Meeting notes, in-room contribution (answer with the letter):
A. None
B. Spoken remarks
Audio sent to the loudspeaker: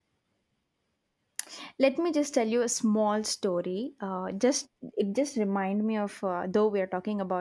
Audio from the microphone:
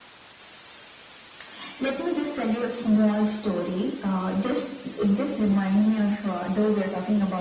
A